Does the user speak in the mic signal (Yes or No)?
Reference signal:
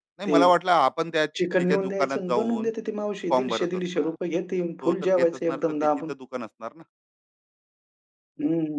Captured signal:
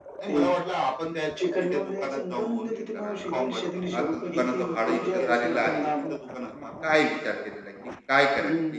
Yes